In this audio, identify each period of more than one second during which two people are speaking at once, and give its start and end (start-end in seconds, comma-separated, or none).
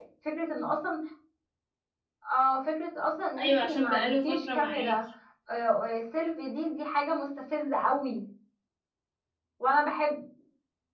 3.4-5.0